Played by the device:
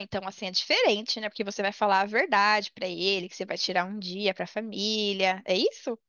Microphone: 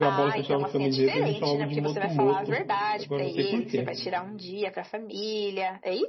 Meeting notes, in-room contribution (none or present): present